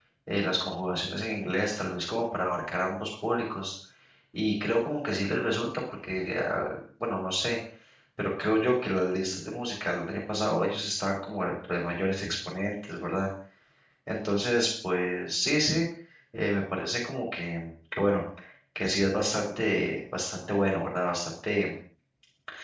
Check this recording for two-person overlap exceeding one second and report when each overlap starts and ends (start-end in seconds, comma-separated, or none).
none